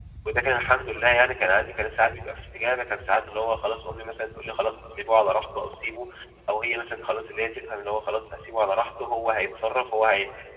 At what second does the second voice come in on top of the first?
none

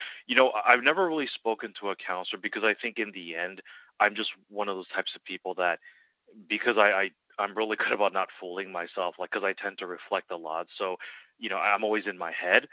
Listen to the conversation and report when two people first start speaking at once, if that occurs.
none

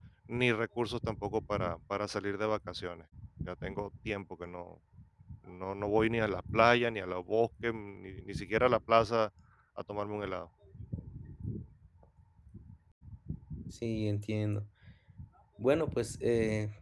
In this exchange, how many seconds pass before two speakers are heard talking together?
none

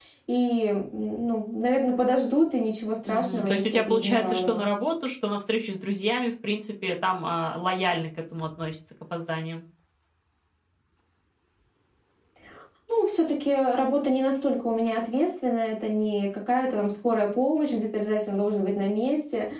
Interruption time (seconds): 3.0 s

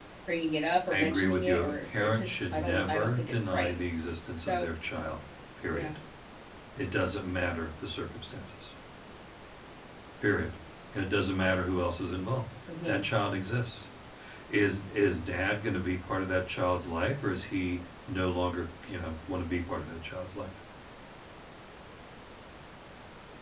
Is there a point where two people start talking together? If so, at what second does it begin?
0.9 s

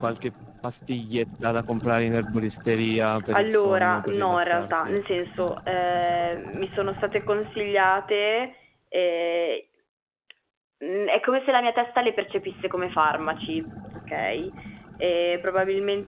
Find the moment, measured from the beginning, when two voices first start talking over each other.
3.3 s

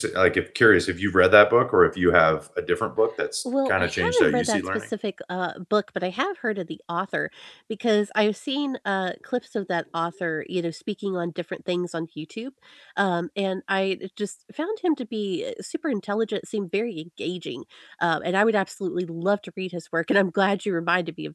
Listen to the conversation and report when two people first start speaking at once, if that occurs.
3.5 s

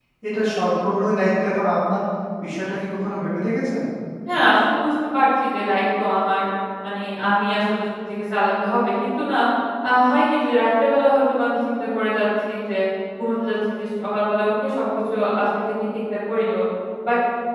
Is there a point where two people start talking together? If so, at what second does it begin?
none

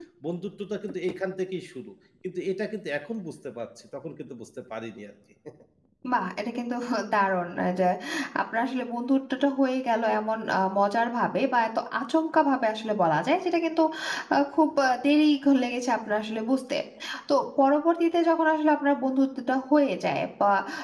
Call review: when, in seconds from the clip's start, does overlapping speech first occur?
none

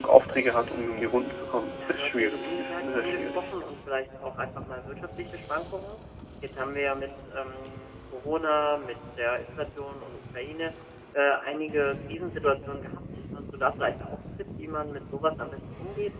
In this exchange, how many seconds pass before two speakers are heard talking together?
1.8 s

